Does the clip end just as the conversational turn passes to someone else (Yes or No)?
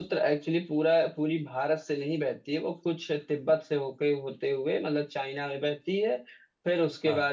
No